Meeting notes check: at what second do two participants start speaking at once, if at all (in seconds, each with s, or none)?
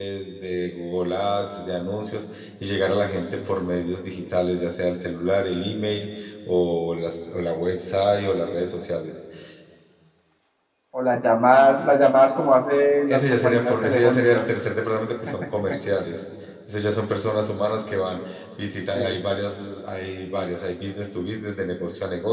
13.1 s